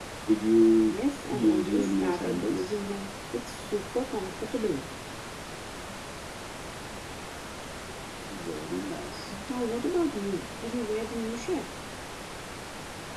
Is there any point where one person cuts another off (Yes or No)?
Yes